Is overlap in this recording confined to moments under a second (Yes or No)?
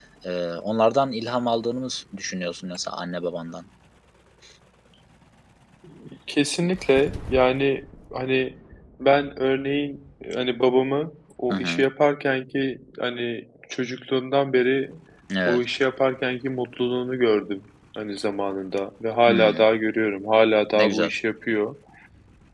Yes